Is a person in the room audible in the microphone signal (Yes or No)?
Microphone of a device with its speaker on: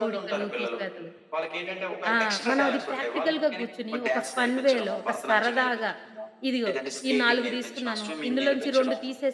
Yes